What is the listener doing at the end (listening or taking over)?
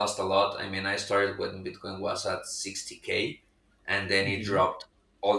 listening